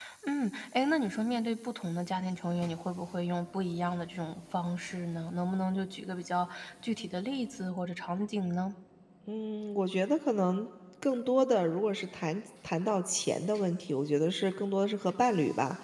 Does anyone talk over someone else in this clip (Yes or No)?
No